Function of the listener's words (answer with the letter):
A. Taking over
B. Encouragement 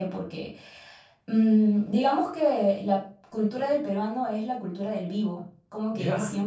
B